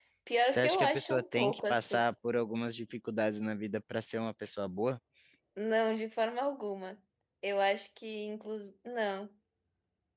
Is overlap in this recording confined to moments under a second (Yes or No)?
No